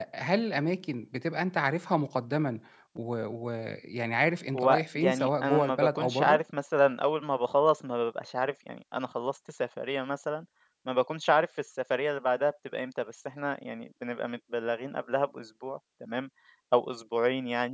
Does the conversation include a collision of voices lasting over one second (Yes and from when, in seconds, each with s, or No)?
Yes, from 4.5 s